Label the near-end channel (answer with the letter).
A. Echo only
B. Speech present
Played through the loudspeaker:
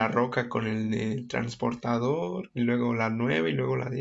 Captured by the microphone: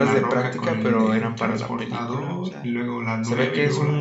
B